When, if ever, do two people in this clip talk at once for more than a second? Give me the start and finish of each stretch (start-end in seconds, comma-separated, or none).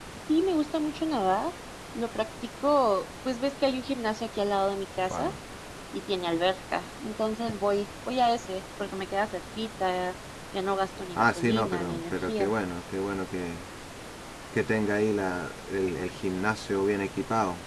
11.1-12.5